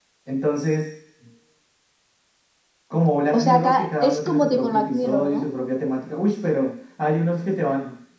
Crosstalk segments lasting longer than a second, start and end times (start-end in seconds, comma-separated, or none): 3.3-5.5